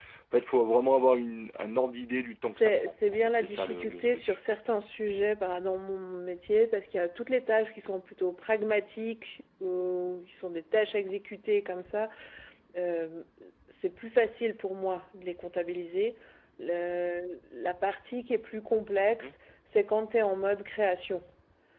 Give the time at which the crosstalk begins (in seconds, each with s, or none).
2.5 s